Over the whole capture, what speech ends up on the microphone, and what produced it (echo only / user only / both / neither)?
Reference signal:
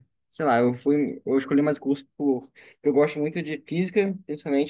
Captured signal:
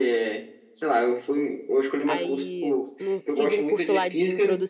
both